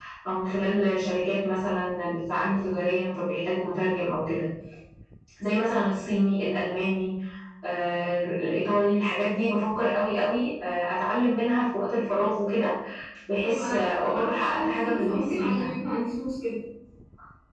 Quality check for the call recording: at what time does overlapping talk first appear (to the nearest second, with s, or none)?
13 s